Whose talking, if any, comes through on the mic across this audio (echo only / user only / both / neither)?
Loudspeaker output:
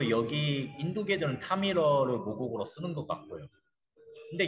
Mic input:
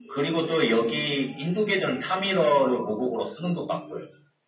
echo only